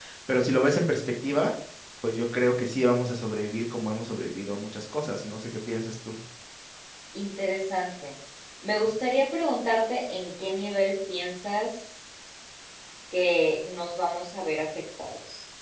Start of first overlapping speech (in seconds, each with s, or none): none